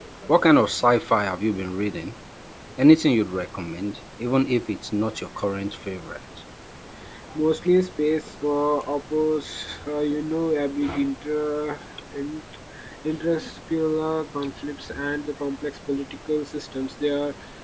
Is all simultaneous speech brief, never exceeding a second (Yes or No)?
Yes